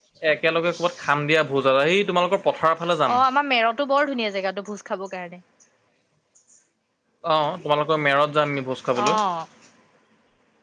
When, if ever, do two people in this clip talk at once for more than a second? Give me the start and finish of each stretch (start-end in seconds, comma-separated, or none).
none